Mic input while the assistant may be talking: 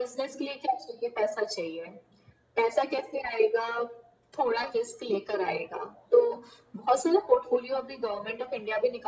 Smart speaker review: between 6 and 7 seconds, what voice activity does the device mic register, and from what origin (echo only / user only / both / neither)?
echo only